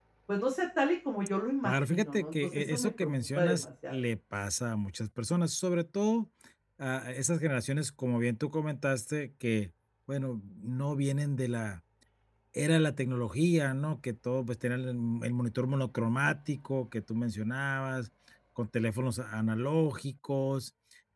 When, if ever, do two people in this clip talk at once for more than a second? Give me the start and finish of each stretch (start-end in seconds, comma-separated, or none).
1.6-4.0